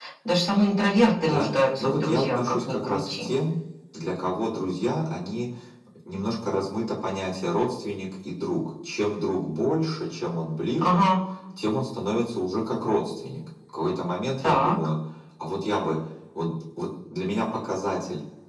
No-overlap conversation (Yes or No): No